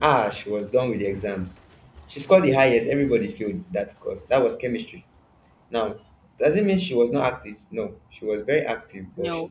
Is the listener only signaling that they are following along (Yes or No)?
Yes